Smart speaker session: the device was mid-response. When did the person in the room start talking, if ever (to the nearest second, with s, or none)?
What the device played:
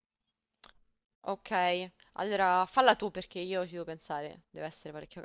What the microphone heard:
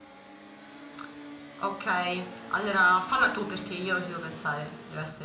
none